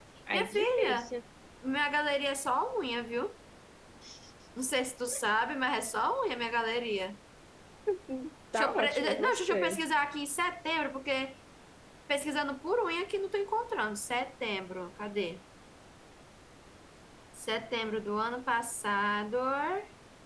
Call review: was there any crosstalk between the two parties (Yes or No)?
Yes